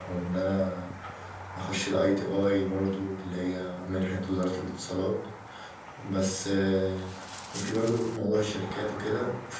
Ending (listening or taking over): listening